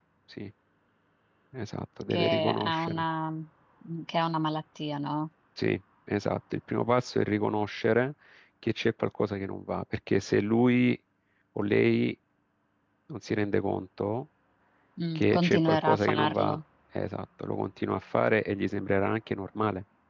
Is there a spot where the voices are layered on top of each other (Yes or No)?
Yes